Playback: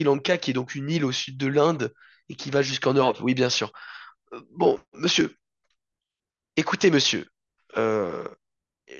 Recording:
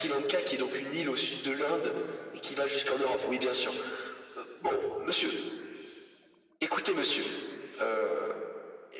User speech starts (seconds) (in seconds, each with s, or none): none